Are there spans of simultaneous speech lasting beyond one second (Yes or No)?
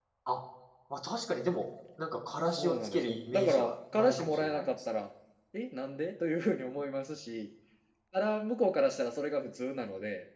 Yes